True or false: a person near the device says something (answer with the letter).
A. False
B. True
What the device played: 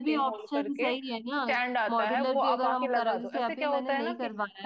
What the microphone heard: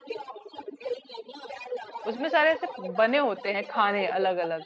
B